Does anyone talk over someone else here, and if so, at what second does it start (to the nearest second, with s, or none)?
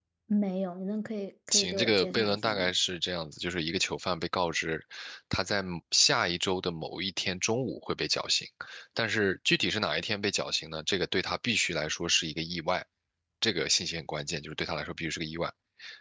1 s